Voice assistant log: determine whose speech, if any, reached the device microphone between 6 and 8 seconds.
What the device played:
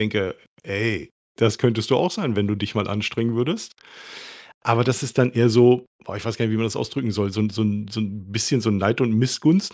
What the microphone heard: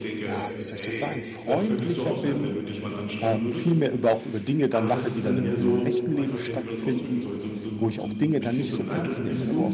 both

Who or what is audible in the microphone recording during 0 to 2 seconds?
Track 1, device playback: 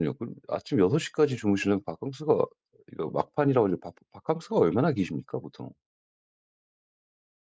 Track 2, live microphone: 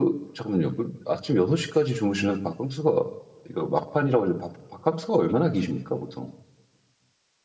echo only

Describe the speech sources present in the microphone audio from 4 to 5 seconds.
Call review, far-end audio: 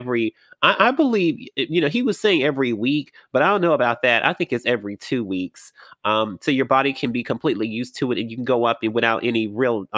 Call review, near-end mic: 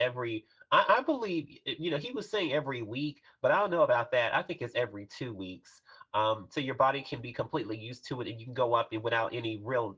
echo only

